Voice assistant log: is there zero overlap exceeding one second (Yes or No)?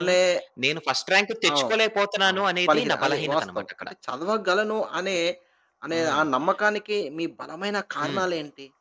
No